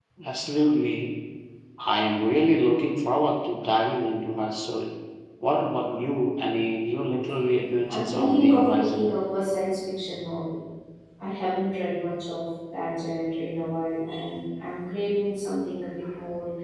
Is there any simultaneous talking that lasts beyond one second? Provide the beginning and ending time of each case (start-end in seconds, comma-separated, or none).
7.8-9.1